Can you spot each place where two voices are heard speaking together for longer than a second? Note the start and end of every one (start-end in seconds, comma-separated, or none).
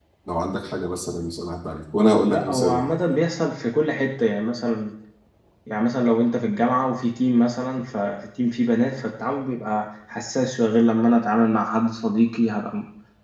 none